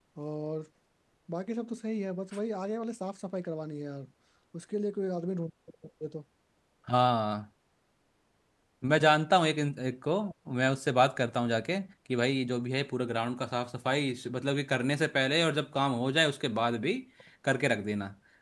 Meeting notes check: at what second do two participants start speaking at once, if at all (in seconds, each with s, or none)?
none